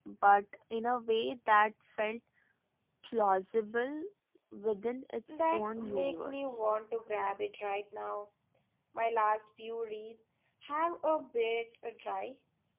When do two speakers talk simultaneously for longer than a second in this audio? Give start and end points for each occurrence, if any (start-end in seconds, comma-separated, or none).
5.3-6.6